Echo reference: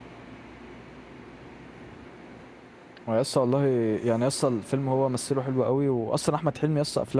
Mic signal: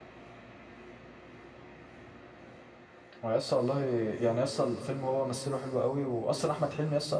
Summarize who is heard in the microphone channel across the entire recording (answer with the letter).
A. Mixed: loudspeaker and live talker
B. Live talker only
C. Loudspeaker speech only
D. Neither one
C